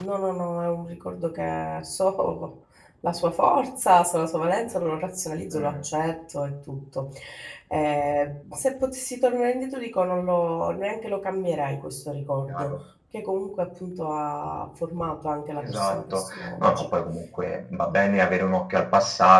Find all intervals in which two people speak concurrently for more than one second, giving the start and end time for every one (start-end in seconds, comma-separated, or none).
15.6-16.9